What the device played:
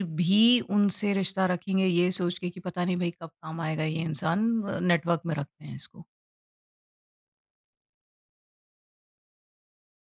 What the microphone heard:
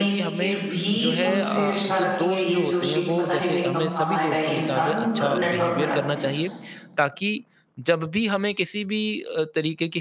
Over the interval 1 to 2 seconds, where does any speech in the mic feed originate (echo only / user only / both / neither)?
both